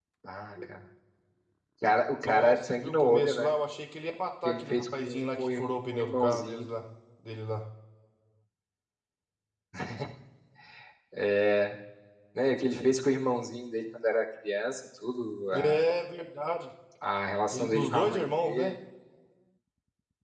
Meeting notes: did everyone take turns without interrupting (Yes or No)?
No